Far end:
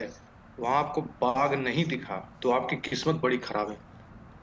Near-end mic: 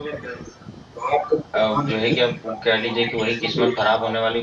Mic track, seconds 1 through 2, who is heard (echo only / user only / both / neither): both